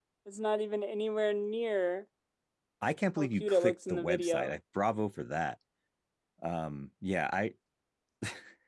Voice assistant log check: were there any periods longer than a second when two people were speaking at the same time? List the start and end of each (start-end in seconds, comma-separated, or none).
3.2-4.5